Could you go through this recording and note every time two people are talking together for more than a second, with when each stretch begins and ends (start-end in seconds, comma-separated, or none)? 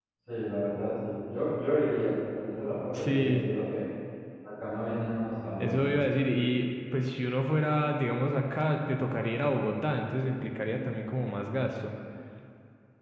none